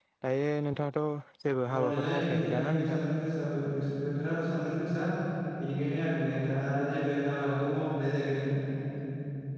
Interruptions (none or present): present